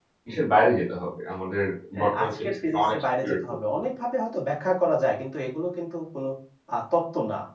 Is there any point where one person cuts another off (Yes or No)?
Yes